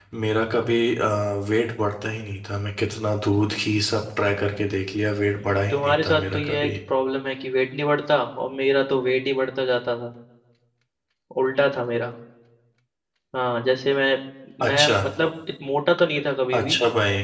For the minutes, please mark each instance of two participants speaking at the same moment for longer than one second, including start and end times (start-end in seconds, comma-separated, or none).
5.4-6.7